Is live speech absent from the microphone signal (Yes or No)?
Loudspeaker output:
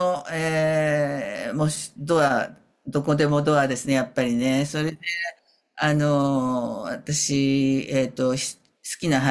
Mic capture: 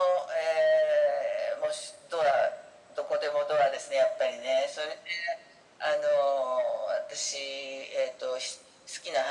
Yes